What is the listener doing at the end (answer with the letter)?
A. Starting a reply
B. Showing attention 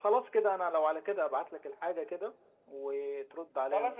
A